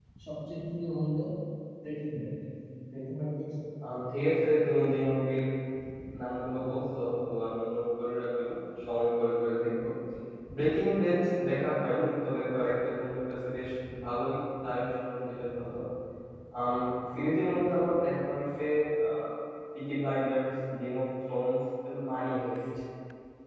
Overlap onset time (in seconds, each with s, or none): none